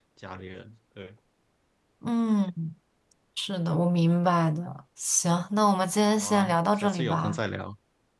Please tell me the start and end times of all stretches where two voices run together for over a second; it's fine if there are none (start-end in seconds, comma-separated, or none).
6.1-7.4